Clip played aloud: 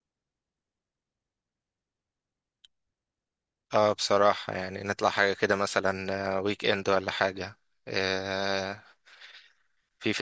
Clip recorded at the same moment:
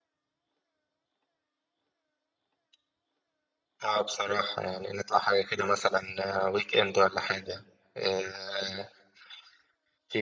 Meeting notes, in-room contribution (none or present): none